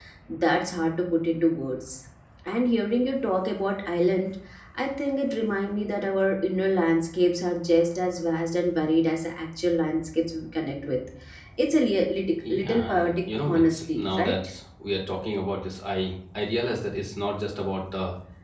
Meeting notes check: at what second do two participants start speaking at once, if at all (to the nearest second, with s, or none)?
12 s